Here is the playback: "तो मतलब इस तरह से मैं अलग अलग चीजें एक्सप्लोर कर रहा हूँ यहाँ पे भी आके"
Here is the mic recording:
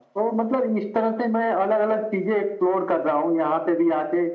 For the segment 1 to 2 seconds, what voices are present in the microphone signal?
echo only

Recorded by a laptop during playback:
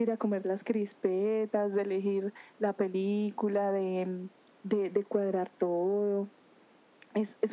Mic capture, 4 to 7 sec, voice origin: echo only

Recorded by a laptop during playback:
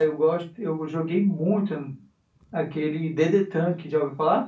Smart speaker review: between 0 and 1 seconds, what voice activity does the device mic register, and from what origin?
user only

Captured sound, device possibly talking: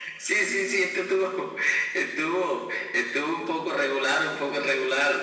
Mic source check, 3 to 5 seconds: echo only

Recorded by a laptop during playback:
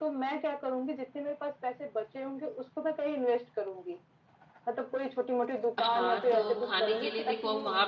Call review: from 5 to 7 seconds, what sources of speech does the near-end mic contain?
both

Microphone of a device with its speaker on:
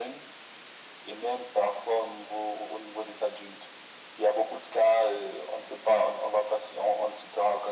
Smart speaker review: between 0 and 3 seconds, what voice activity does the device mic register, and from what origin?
echo only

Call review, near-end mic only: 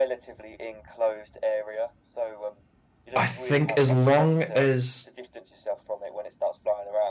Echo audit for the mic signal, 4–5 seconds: both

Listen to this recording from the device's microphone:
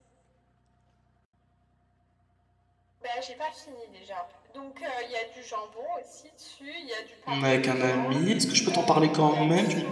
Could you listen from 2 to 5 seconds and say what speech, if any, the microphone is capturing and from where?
echo only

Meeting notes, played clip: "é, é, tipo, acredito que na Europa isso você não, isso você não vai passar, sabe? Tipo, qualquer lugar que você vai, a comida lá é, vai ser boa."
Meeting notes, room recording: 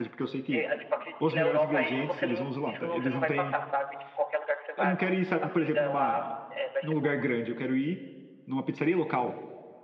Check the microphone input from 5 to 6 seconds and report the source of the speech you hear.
both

